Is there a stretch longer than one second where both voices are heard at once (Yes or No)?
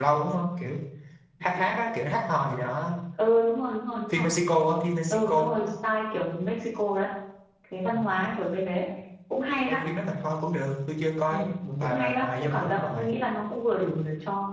Yes